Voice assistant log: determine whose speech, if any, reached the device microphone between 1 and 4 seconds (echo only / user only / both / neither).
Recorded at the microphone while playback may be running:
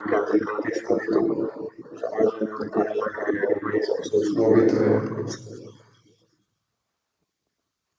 echo only